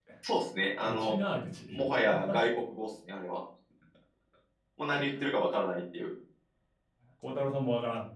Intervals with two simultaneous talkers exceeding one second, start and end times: none

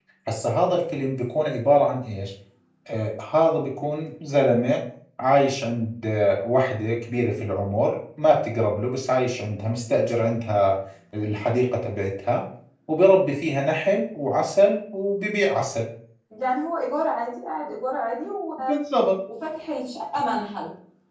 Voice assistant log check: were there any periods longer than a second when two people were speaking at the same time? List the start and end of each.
none

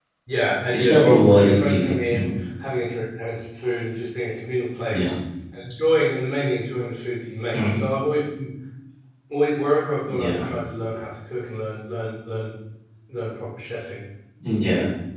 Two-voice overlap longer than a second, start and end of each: 0.7-2.3

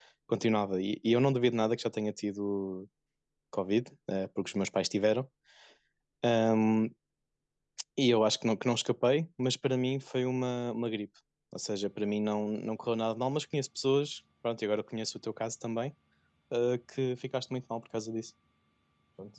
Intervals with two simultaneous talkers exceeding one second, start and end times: none

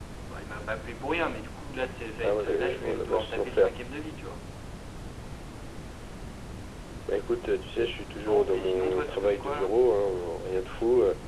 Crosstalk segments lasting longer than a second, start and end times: 2.2-3.7, 8.3-9.7

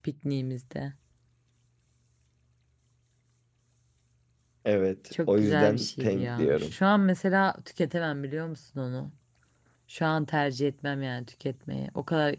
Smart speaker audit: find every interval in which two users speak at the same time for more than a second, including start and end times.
5.3-6.7

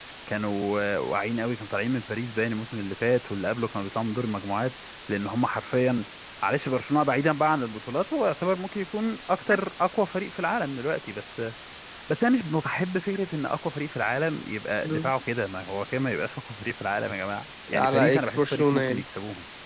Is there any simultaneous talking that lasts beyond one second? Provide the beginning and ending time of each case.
17.7-19.0

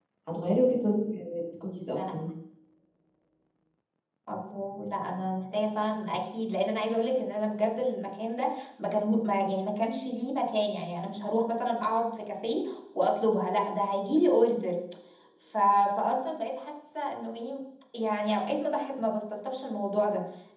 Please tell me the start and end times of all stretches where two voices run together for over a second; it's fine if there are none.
none

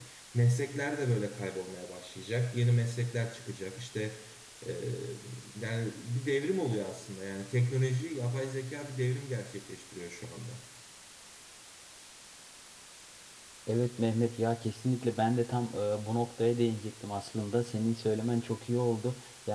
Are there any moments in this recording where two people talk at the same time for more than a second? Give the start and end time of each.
none

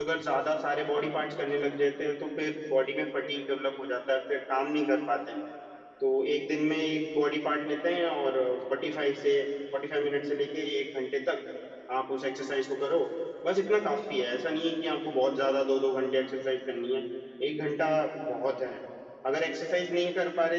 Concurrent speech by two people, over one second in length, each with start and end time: none

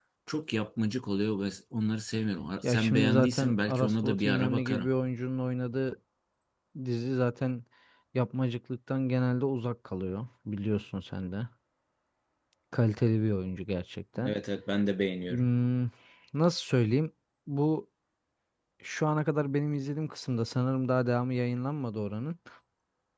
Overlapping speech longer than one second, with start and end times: 2.6-4.9

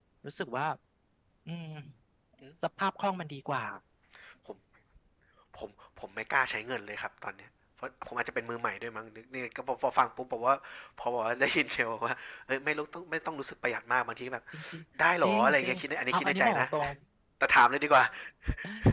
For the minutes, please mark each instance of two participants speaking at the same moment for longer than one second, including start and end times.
15.2-16.6

